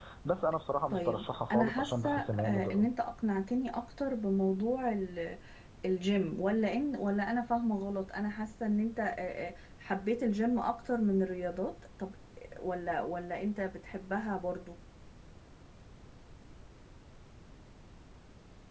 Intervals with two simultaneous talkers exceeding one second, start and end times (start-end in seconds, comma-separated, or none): 0.9-2.9